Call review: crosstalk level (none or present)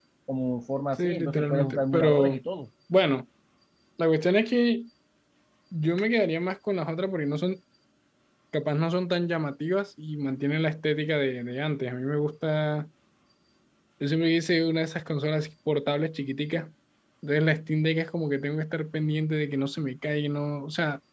present